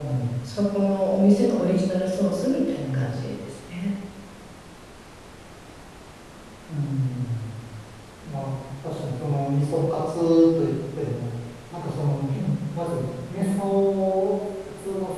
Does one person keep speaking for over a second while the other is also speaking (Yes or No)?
No